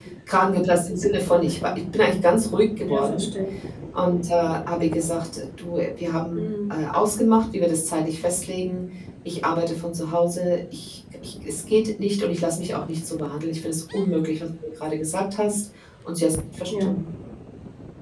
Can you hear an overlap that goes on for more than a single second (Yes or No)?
No